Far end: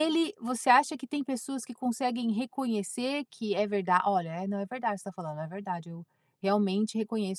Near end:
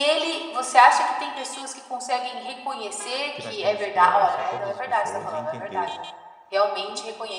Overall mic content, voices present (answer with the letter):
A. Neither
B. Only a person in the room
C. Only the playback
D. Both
D